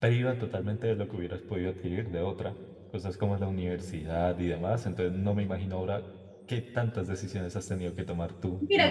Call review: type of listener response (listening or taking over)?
taking over